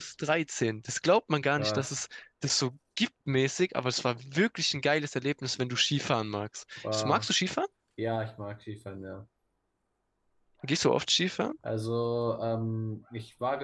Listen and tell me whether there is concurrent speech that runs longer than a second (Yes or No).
No